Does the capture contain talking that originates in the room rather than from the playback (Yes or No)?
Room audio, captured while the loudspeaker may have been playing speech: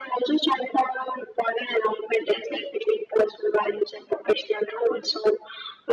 No